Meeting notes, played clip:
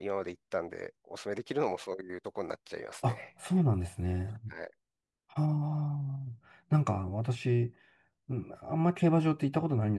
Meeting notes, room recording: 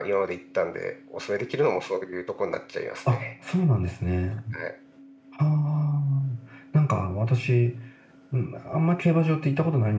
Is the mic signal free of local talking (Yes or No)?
Yes